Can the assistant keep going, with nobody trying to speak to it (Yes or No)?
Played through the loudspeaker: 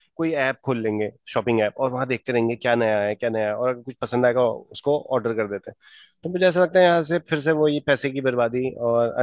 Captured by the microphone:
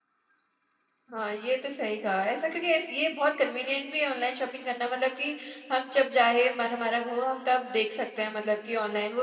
No